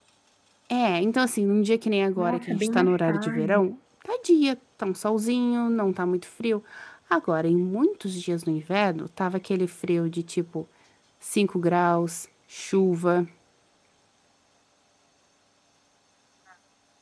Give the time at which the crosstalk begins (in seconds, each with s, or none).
2.2 s